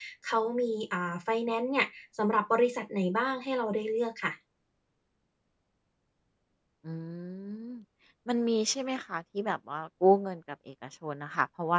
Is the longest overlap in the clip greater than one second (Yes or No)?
No